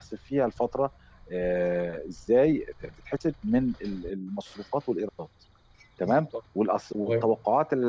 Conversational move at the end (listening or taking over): listening